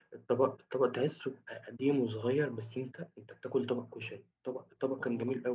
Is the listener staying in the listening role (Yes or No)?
Yes